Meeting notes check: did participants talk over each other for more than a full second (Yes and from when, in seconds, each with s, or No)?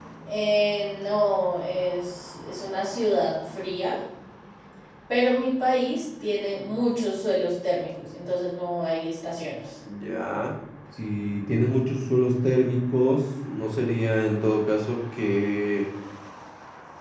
No